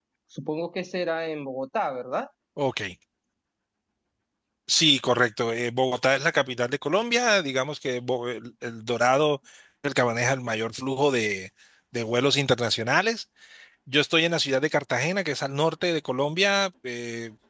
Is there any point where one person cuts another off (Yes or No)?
No